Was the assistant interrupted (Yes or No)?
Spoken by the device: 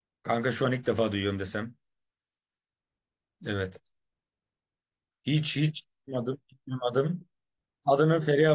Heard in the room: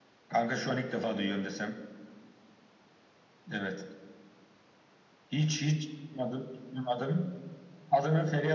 No